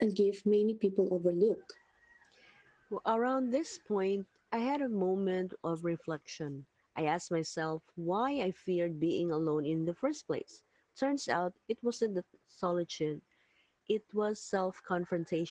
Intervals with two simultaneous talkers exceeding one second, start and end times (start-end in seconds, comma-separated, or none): none